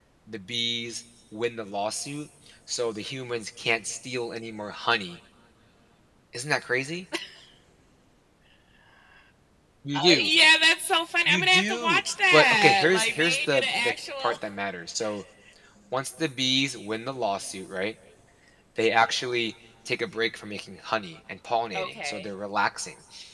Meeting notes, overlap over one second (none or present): present